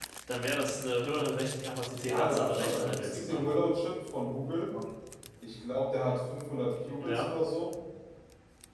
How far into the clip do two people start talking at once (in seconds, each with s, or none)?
2.0 s